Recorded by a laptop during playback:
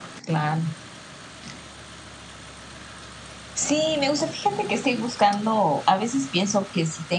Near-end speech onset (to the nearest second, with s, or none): none